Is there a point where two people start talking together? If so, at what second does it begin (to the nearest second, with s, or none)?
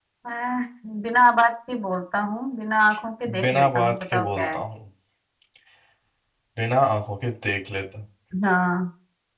3 s